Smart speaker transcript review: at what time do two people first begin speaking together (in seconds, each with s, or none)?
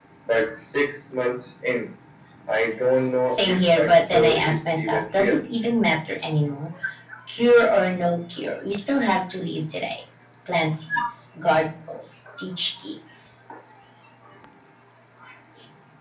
3.3 s